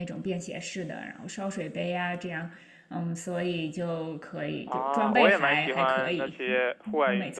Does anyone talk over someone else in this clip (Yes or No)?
Yes